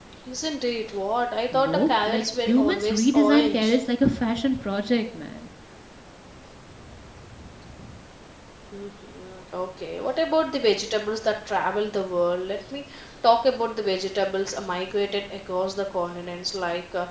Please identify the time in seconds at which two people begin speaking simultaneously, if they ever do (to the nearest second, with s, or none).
2 s